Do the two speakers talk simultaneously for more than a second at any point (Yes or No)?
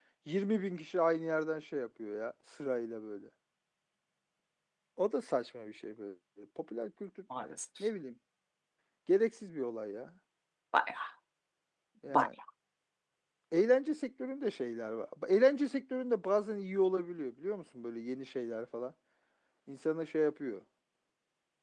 No